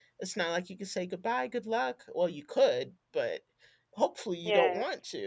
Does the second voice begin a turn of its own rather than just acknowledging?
No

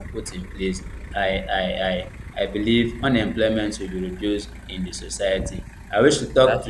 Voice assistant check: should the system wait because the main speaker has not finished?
Yes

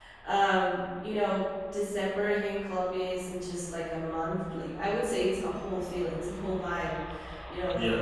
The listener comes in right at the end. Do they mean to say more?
No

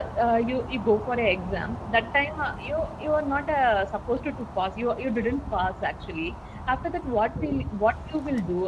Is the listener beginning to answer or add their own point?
No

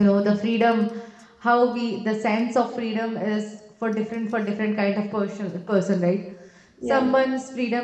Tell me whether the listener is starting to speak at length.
No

